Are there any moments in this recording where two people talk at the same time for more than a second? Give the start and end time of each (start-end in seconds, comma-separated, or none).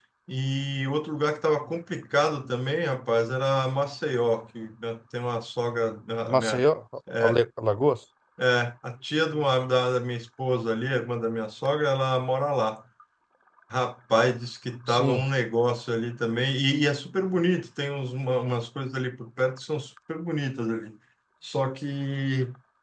none